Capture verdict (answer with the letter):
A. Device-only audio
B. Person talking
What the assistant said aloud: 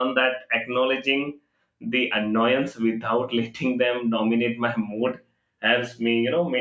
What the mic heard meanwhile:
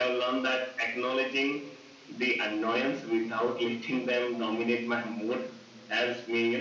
A